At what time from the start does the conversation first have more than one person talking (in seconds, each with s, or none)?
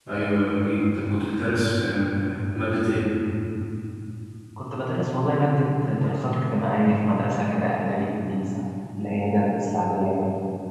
none